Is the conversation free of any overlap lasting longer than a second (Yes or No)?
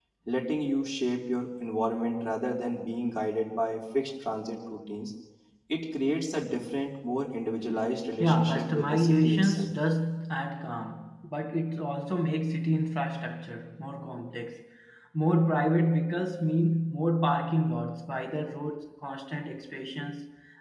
No